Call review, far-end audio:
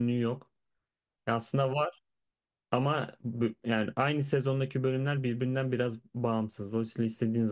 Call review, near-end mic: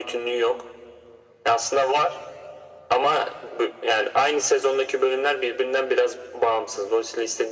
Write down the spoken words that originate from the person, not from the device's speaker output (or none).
none